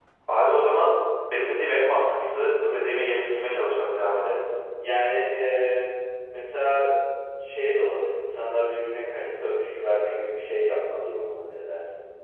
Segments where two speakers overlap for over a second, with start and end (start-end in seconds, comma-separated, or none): none